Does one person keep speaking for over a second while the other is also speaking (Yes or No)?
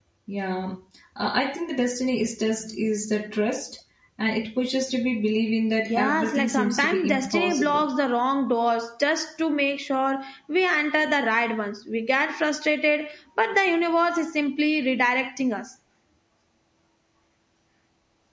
Yes